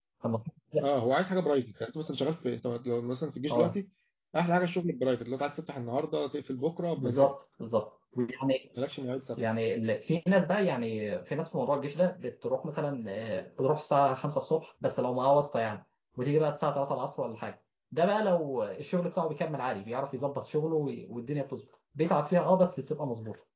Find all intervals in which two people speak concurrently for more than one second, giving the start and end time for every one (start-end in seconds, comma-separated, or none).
none